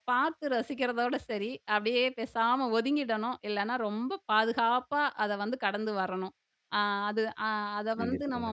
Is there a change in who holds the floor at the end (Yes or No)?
No